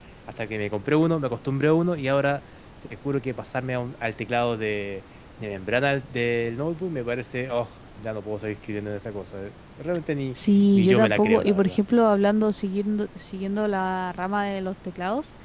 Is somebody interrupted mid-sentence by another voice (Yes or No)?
Yes